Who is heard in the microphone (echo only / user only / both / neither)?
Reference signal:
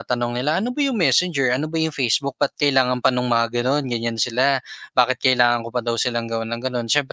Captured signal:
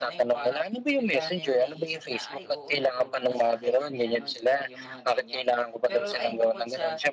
both